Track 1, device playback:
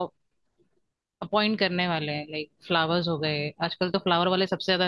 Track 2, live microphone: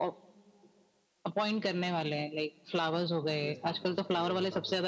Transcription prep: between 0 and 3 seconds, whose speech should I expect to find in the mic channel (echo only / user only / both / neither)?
echo only